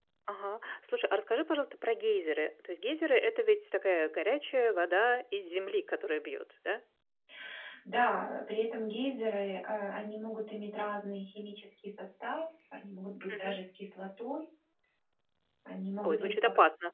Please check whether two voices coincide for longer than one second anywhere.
No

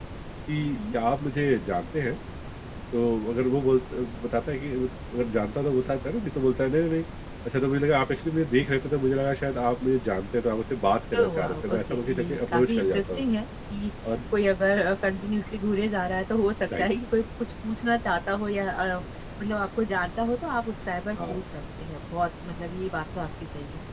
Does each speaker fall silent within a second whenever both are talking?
No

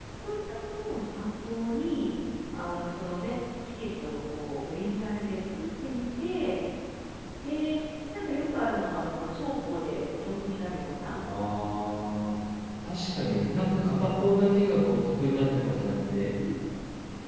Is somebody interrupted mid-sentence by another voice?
No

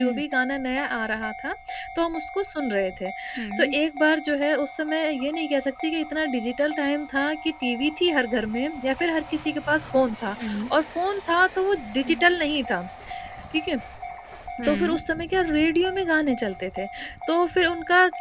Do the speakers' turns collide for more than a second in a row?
No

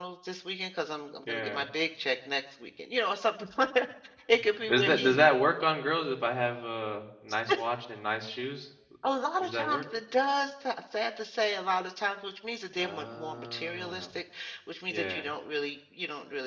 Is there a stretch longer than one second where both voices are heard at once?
Yes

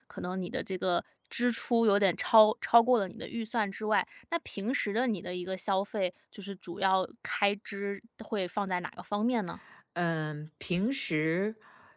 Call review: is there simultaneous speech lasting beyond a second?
No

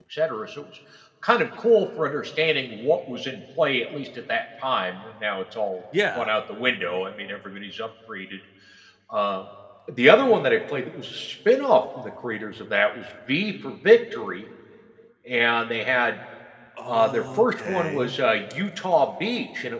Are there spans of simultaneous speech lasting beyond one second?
Yes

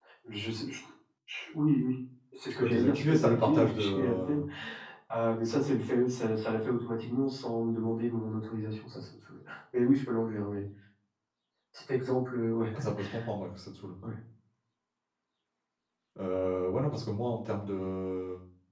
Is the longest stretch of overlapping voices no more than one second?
No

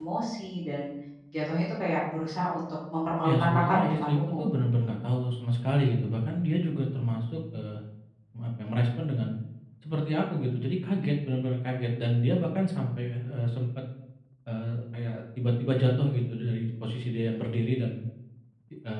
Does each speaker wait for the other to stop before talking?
No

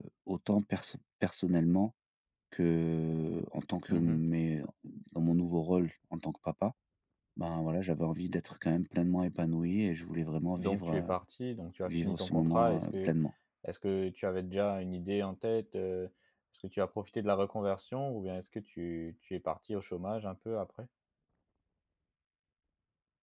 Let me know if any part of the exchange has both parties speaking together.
Yes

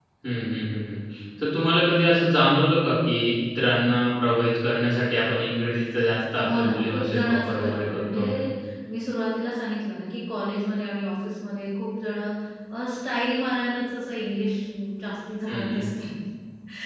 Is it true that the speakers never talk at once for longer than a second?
No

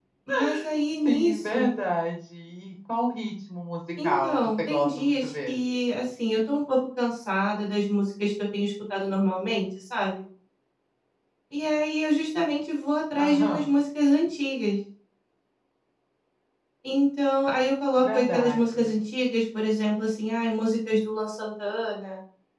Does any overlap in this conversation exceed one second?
Yes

